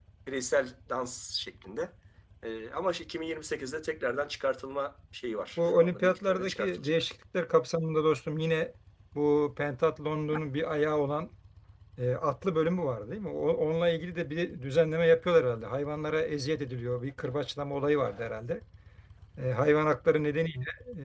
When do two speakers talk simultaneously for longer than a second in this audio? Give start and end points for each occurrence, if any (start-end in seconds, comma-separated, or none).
5.6-7.0